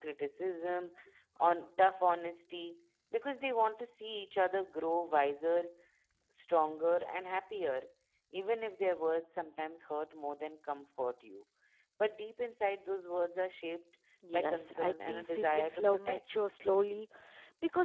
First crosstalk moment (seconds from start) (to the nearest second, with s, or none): 14 s